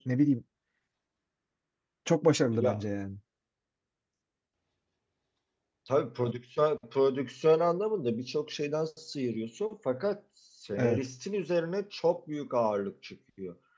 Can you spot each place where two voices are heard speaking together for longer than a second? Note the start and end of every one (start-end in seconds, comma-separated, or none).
none